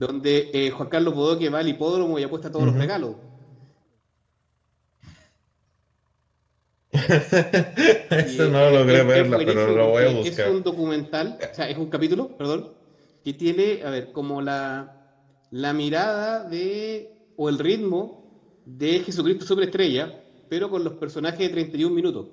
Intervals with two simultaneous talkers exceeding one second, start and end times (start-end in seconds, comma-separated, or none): 8.2-10.5